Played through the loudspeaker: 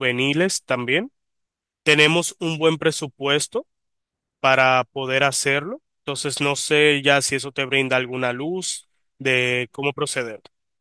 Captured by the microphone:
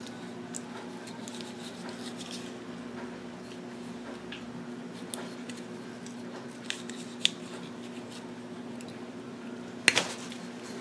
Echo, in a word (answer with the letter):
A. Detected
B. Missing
B